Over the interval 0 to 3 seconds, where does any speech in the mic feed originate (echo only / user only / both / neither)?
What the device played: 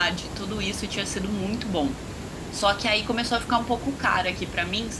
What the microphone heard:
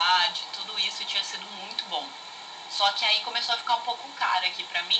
echo only